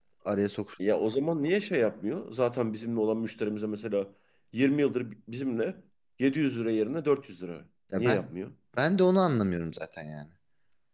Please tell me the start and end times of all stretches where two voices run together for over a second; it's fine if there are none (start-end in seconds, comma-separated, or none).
none